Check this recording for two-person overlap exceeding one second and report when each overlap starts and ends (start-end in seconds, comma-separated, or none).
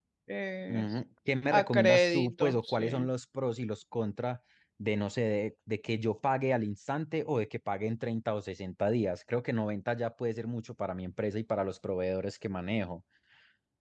1.5-3.1